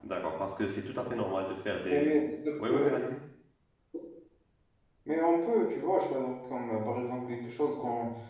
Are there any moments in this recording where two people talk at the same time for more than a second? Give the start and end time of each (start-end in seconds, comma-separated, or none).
none